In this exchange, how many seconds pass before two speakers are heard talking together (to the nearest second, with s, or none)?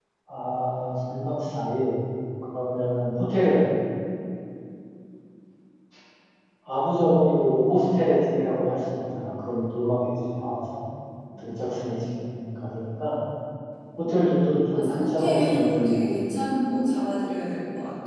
15 s